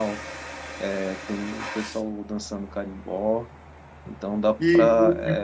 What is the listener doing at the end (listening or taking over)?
taking over